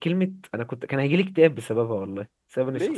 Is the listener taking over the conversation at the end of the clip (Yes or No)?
Yes